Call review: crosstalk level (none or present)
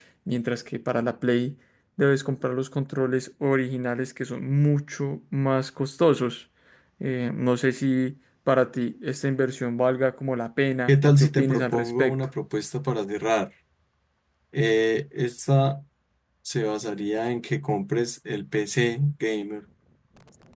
present